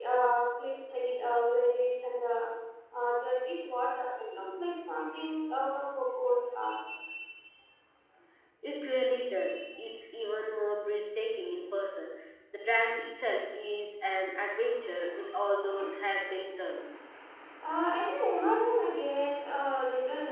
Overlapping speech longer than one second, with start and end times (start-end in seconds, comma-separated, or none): none